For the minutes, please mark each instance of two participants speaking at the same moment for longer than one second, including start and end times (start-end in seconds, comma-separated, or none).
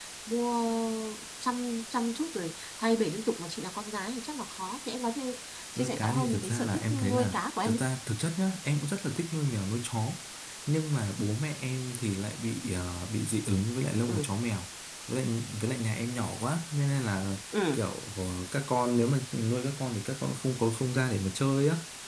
5.8-7.8